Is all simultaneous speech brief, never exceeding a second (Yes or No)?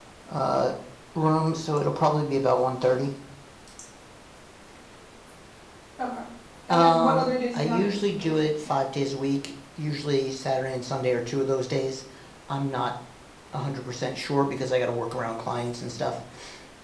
No